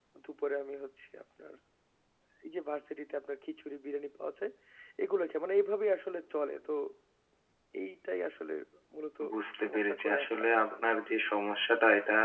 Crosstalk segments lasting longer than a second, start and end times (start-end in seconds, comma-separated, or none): 9.6-10.8